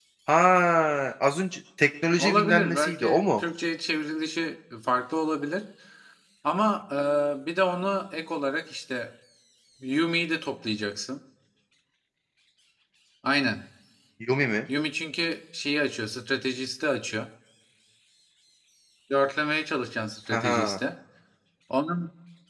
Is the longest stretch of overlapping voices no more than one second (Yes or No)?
No